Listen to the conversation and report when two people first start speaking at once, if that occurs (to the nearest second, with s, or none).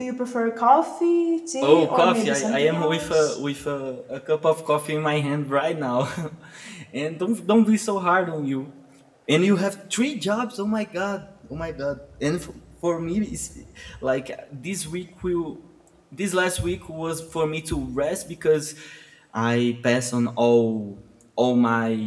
2 s